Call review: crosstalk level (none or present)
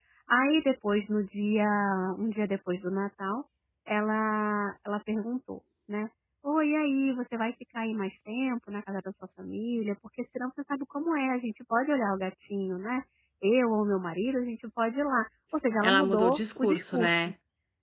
present